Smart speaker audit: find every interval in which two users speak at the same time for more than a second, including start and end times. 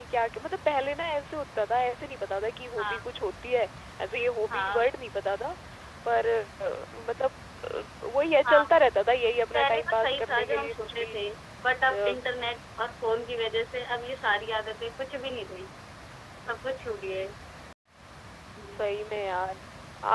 9.5-11.1

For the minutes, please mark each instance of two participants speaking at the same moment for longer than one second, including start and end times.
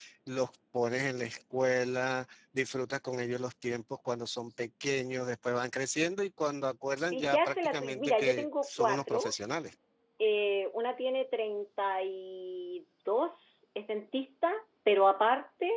7.0-9.3

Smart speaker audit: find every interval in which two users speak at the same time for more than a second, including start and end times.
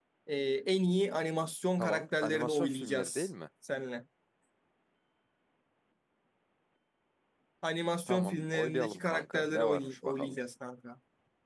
1.8-3.3, 8.1-10.3

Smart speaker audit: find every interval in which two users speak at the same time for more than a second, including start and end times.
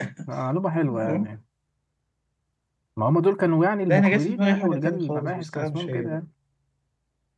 3.9-6.2

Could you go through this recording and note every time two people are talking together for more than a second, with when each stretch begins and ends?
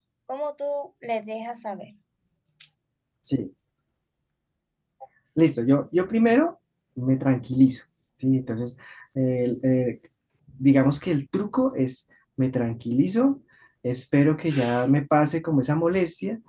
none

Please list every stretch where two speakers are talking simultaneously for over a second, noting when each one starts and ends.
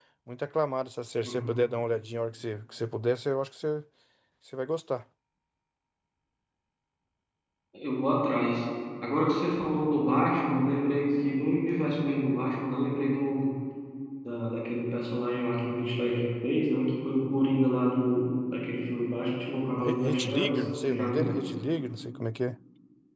19.8-21.3

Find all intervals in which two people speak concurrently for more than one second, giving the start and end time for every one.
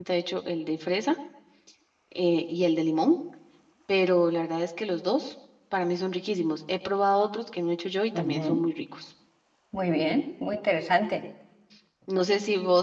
none

